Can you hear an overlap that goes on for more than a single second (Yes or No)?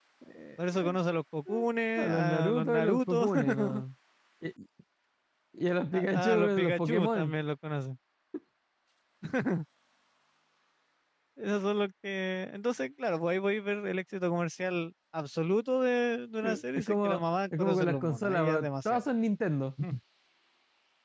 Yes